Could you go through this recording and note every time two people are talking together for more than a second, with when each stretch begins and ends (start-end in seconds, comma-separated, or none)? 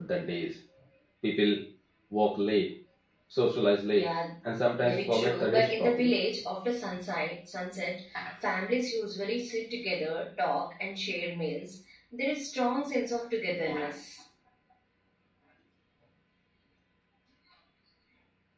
4.8-6.1